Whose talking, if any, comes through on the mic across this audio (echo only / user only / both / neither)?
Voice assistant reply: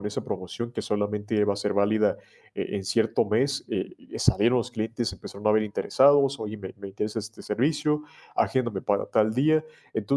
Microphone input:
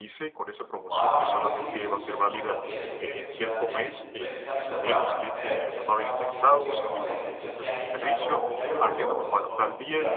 both